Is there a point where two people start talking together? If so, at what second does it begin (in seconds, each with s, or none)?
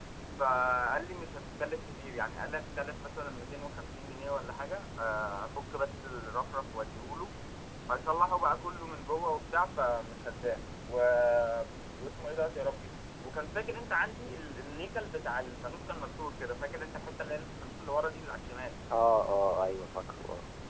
none